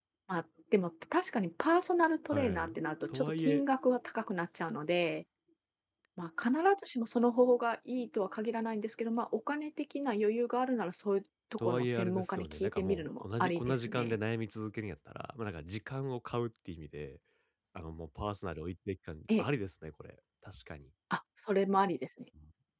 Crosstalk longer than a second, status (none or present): present